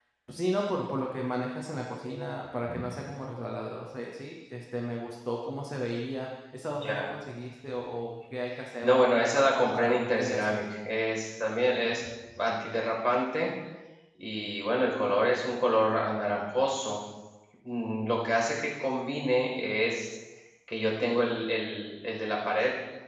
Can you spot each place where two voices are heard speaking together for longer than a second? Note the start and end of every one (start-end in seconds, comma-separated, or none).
8.8-10.6